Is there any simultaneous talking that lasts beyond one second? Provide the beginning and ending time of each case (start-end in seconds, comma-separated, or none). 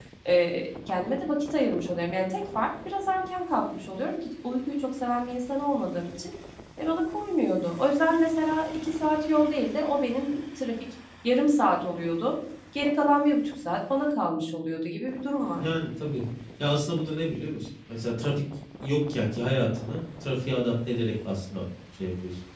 none